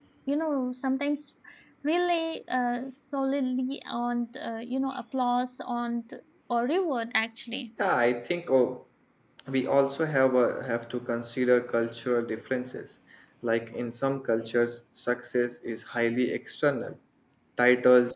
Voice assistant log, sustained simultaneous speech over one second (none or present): none